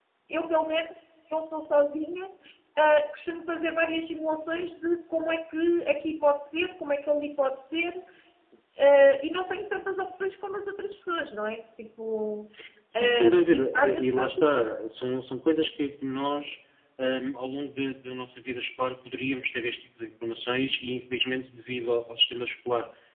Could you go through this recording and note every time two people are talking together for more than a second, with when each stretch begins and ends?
12.9-14.7

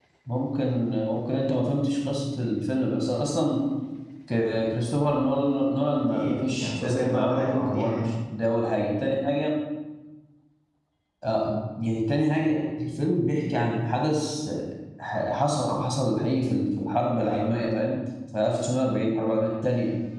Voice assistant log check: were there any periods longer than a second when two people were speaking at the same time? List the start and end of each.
5.9-8.0

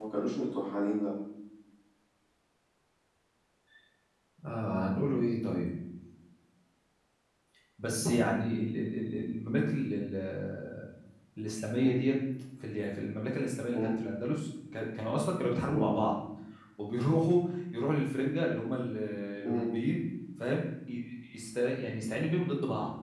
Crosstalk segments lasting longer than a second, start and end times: none

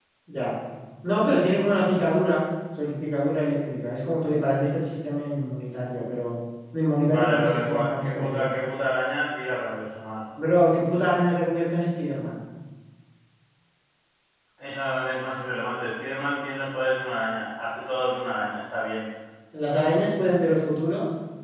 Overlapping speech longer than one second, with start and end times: 7.0-8.5

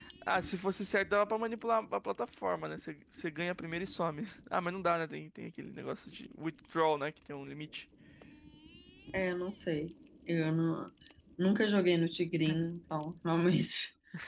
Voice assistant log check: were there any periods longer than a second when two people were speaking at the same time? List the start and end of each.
none

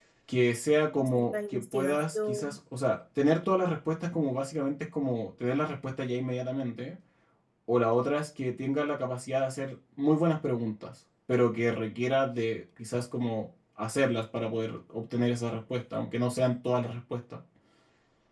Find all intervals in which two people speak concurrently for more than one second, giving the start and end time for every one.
1.1-2.6

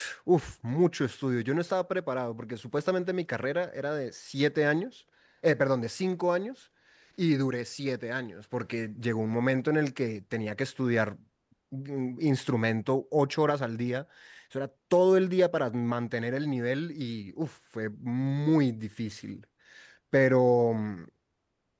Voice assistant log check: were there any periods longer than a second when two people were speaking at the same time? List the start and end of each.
none

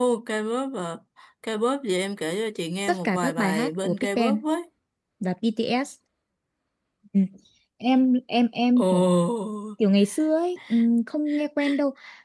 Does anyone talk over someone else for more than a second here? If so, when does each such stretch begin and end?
2.9-4.4

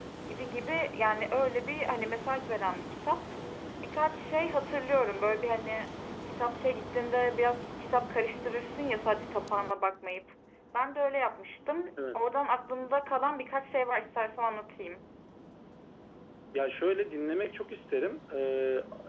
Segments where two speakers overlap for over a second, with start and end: none

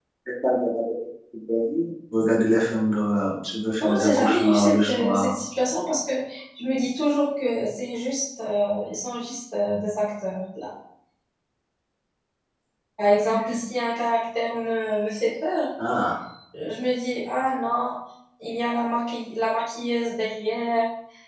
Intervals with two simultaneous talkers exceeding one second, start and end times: 3.8-5.3

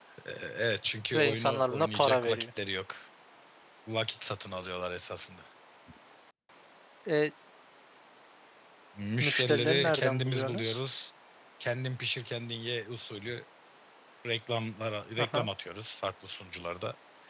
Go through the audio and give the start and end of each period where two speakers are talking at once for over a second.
1.1-2.5, 9.2-10.8

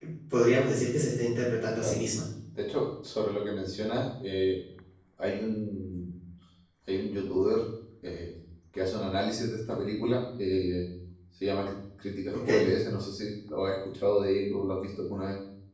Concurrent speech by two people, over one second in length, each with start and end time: none

